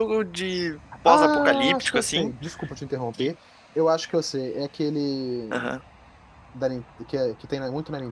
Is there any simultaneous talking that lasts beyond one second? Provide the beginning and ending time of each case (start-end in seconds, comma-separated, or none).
1.0-2.3